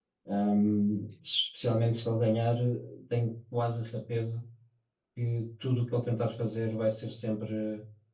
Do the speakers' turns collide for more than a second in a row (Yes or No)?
No